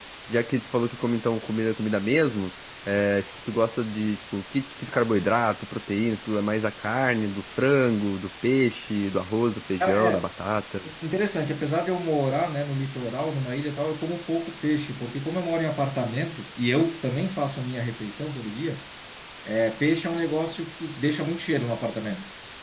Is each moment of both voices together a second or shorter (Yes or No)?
Yes